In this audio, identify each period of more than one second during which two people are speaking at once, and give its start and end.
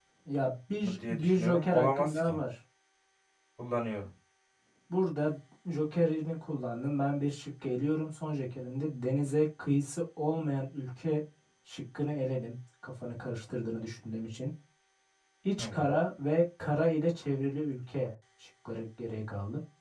0.8-2.4

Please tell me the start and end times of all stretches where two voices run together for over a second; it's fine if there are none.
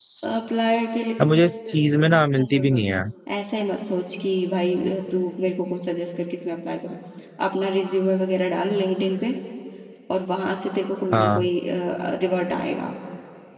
1.4-2.8

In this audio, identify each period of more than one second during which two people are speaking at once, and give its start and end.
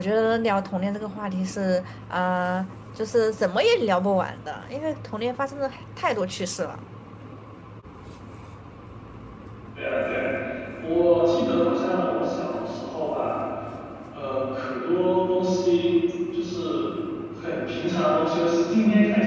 none

